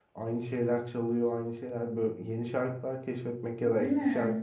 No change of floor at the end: Yes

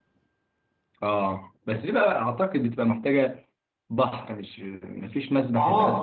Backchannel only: No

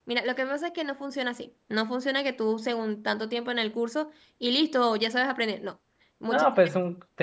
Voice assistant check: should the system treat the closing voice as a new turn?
Yes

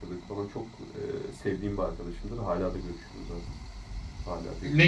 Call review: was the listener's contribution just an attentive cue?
No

